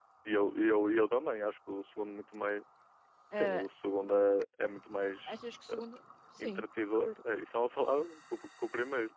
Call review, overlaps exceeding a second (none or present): none